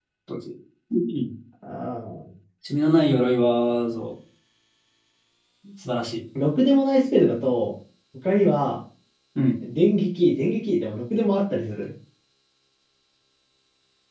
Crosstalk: none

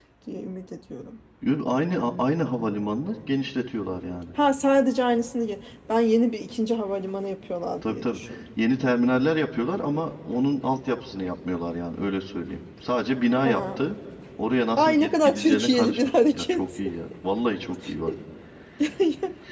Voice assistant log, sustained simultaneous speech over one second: present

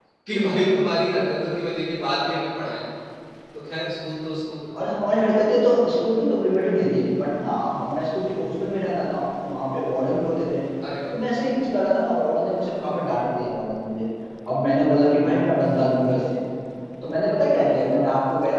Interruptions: none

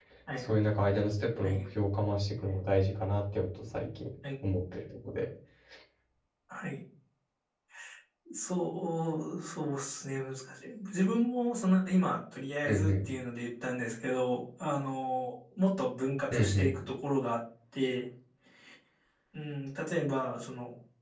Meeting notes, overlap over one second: none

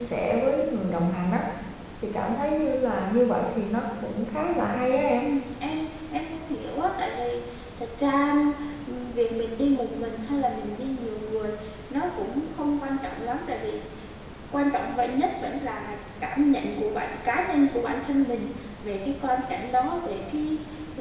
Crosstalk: none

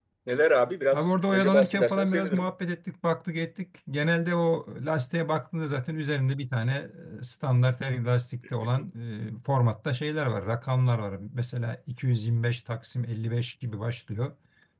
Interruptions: present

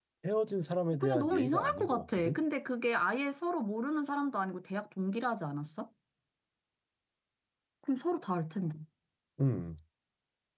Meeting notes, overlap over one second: present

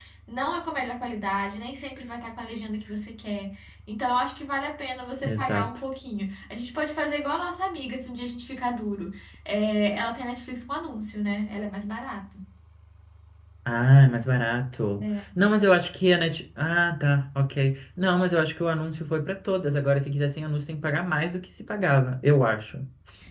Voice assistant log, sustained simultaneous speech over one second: none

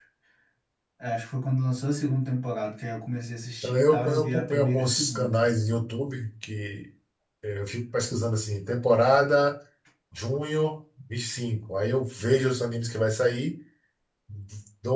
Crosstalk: present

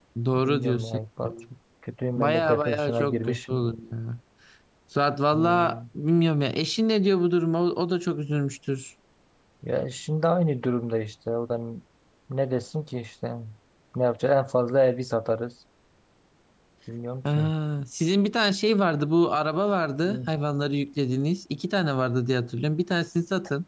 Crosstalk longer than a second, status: present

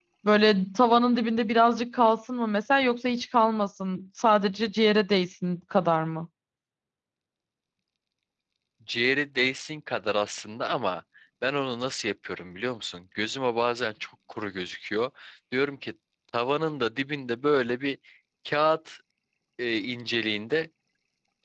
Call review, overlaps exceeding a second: none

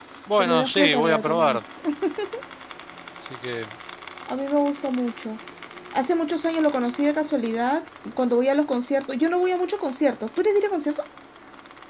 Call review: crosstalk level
present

